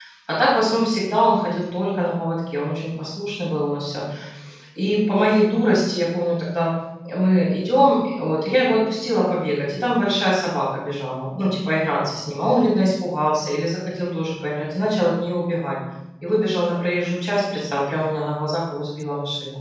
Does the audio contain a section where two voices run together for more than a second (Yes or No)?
No